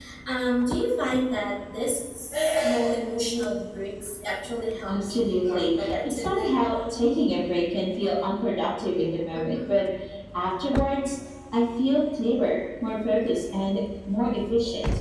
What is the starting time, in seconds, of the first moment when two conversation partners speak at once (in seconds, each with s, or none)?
4.9 s